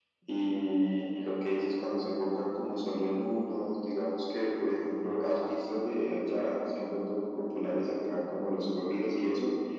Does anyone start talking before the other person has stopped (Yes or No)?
No